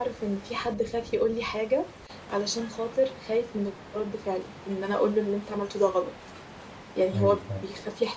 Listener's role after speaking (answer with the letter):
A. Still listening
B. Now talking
A